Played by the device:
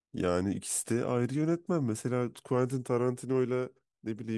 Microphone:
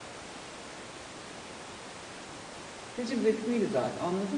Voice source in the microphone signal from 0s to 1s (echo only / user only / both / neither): neither